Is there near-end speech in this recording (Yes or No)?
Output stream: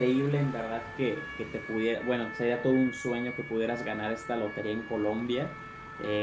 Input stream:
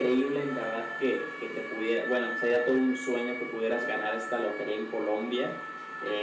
No